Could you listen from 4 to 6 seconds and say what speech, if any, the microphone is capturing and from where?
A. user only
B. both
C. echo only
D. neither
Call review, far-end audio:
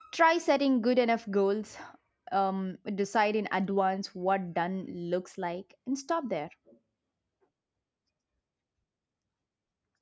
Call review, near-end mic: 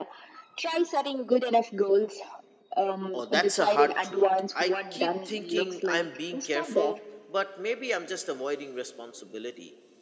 B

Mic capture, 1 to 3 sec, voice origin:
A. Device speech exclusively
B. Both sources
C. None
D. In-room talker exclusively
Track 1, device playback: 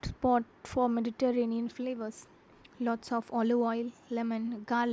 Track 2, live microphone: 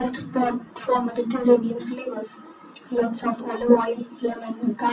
A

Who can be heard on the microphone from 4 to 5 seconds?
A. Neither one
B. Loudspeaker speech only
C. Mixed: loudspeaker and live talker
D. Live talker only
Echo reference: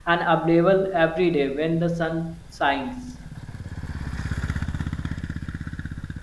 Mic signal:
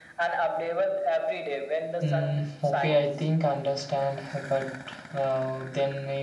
D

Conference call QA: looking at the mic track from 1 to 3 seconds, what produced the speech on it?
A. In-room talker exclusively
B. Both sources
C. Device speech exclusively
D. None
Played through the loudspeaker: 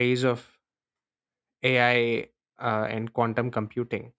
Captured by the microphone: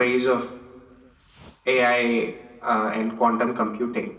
C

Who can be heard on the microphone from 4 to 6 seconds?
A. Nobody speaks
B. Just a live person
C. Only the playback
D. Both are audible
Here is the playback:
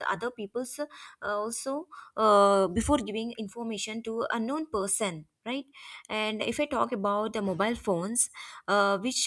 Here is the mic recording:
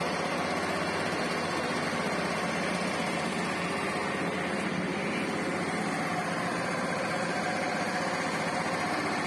A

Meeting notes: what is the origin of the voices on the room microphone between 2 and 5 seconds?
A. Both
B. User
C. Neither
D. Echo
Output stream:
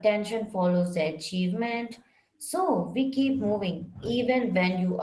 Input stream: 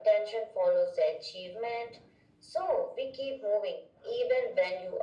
D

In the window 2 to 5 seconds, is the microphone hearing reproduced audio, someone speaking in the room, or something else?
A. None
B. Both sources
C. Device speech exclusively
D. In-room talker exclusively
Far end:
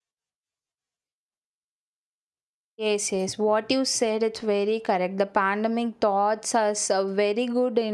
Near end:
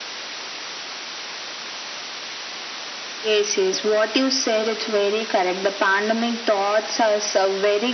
C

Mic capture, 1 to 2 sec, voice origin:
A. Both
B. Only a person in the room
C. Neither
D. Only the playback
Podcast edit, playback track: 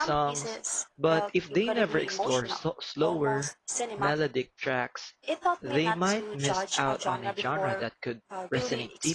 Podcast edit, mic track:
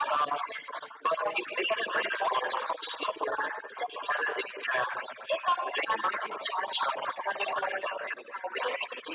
D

